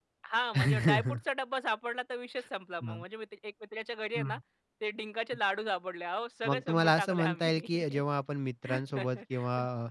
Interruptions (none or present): present